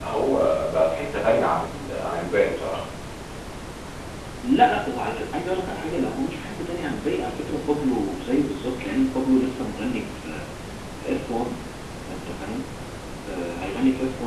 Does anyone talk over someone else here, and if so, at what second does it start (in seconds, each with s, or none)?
none